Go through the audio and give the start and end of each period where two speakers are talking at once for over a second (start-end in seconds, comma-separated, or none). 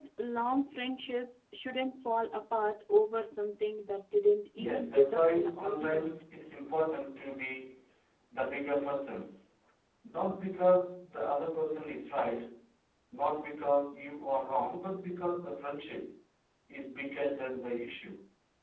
4.6-6.1